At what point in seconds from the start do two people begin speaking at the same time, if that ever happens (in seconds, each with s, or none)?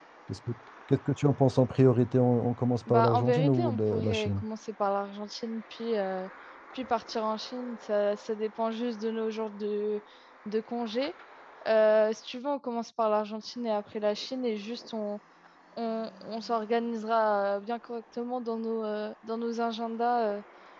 2.9 s